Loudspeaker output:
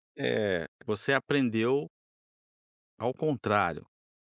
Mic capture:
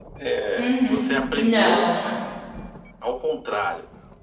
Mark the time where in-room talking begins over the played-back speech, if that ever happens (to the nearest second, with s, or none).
1 s